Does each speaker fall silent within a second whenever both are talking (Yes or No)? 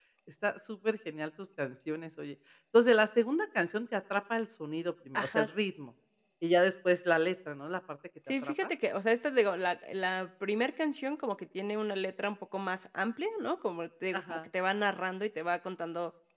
Yes